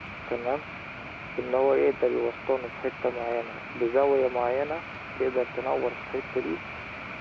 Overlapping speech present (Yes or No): No